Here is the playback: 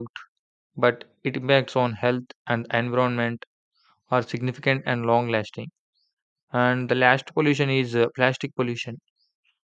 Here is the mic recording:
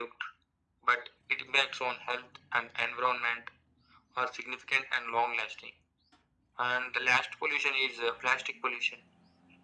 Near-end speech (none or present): none